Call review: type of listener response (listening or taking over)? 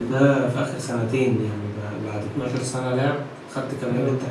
listening